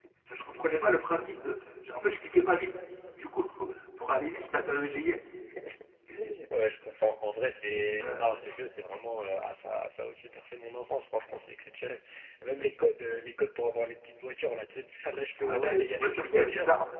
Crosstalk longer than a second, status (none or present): present